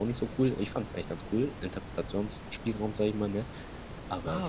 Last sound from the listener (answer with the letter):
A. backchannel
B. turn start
B